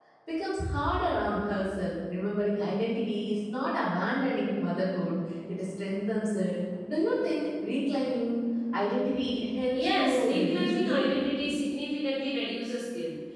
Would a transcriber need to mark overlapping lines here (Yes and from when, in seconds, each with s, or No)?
Yes, from 9.7 s